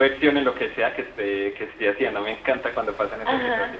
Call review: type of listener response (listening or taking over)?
taking over